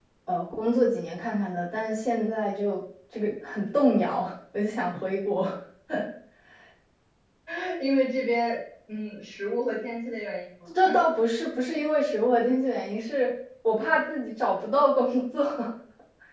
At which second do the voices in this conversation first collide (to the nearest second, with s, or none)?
none